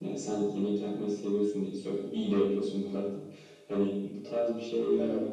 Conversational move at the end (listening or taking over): listening